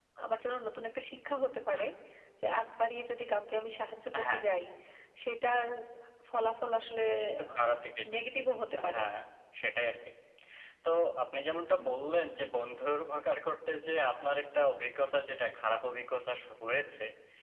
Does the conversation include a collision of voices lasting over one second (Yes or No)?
No